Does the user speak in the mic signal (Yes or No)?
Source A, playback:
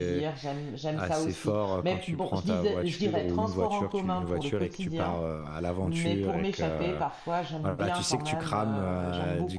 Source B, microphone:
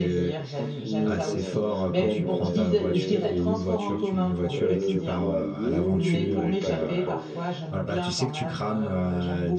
Yes